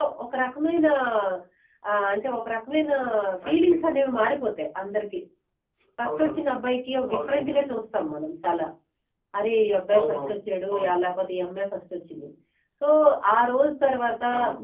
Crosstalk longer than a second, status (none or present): none